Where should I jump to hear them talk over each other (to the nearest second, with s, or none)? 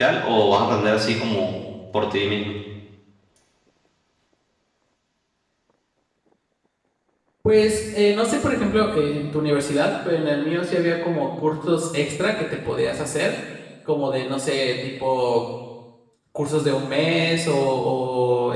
none